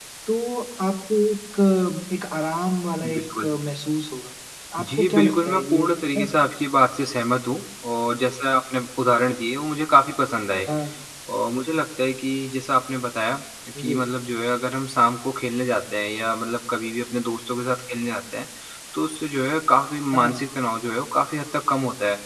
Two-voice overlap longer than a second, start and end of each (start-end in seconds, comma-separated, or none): 4.8-6.2